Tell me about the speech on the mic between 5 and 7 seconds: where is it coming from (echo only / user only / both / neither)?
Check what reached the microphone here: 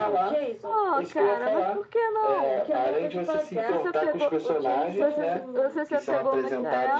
both